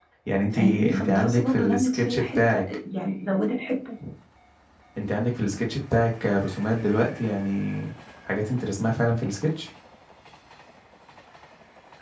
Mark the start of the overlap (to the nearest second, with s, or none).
1 s